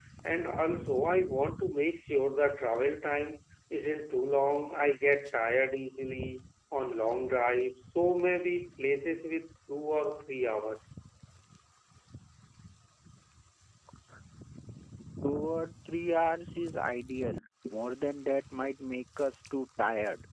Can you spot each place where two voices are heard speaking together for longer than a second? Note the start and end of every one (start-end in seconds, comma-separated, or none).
none